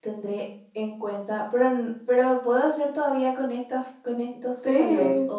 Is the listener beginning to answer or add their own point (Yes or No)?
Yes